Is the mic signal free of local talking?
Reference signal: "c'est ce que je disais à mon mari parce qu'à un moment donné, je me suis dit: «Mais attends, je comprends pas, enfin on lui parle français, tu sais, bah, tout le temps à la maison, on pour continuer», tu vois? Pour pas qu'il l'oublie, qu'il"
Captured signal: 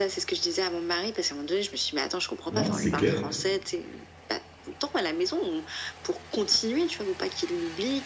No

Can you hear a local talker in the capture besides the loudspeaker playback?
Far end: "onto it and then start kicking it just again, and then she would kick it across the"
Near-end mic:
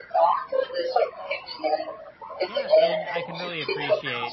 Yes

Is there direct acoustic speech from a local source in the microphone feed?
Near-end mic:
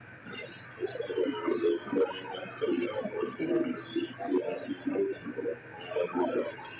Yes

